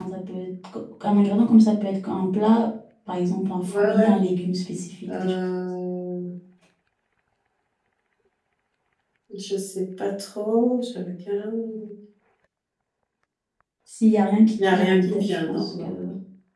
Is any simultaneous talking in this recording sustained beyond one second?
Yes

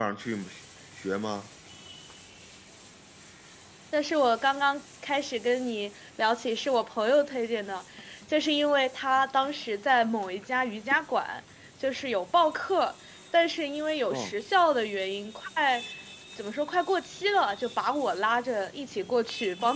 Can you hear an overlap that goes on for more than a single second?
No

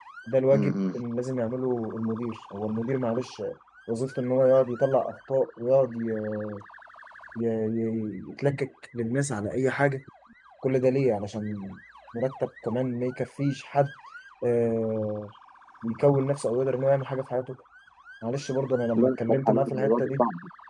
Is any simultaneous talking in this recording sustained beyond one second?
Yes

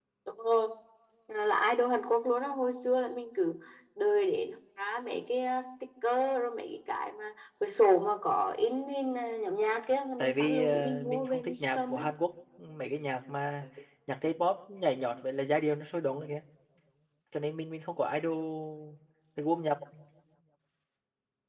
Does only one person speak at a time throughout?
No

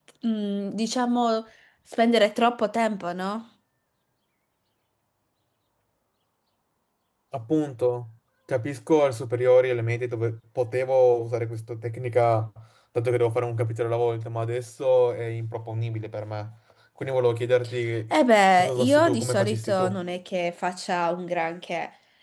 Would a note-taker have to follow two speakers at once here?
Yes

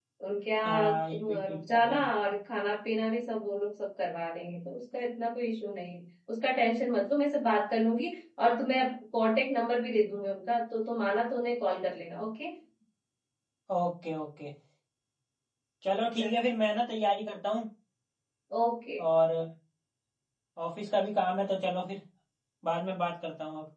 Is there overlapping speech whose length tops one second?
Yes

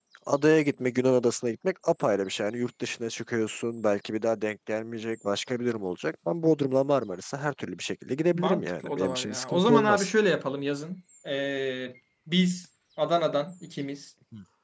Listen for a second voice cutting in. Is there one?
Yes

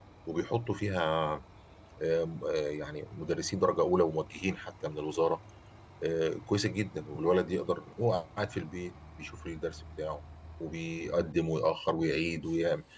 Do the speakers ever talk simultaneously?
No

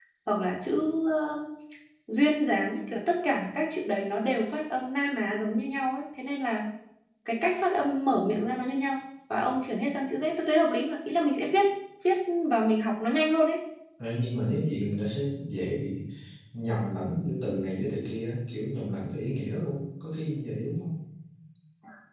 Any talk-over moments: No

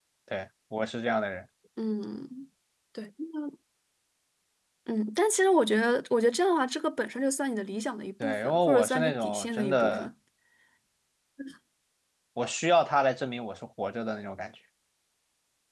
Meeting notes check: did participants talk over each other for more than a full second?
Yes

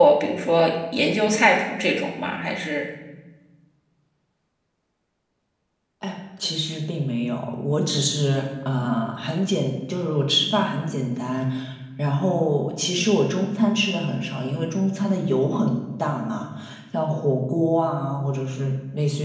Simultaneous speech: No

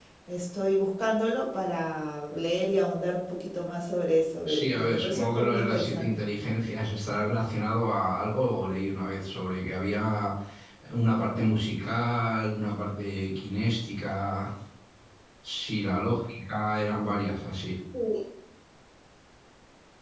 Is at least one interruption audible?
Yes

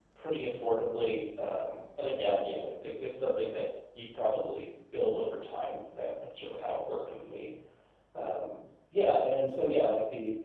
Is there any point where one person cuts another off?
No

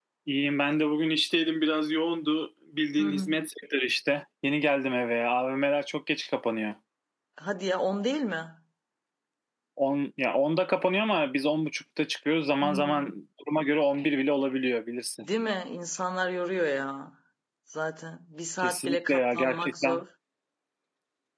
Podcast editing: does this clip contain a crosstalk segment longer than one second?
Yes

